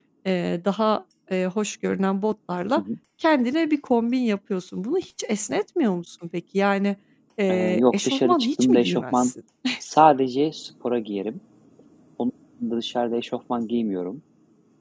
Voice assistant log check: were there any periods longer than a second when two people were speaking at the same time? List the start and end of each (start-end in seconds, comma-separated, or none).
7.5-9.3